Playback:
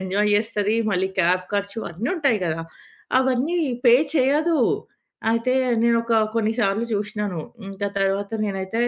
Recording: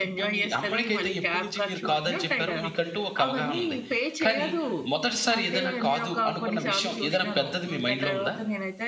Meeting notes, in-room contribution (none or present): present